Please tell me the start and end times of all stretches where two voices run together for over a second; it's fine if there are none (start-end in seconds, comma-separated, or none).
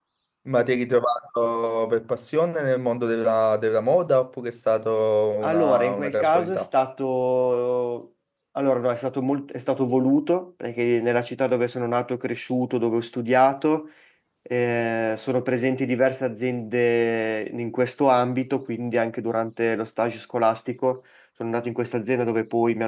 5.4-6.6